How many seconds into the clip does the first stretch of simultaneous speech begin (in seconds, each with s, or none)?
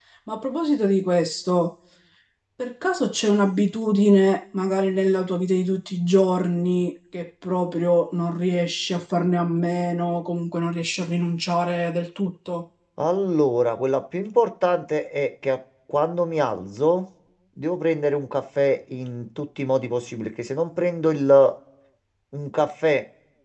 none